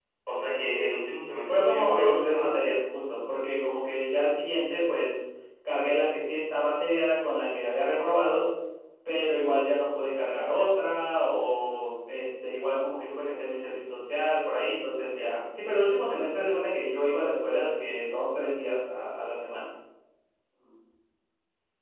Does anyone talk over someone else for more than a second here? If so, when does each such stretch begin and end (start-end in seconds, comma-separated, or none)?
1.4-2.8